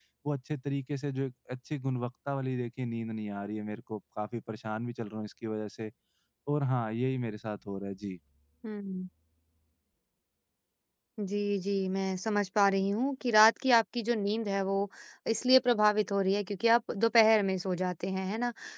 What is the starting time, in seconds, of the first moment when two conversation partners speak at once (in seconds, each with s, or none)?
none